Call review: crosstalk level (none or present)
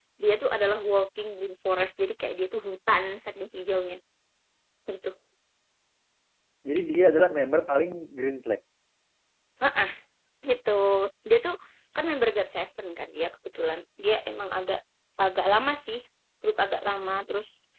none